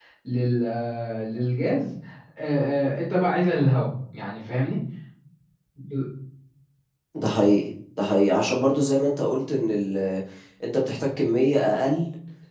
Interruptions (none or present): none